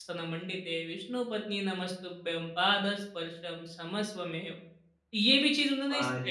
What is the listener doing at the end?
taking over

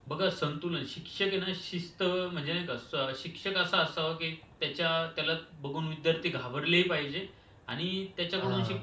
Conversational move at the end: listening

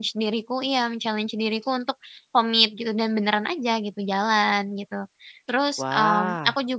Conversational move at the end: listening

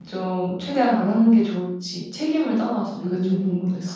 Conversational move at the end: taking over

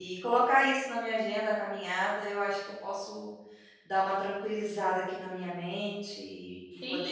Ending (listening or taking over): taking over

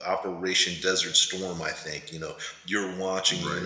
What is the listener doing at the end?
listening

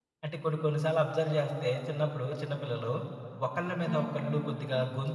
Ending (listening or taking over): listening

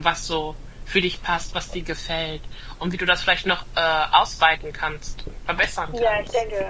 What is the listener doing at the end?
taking over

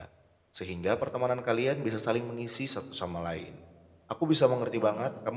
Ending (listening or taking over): listening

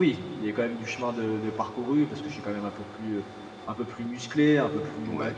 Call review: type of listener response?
listening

